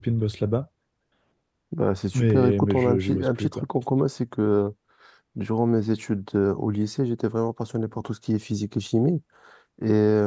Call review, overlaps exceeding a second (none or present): present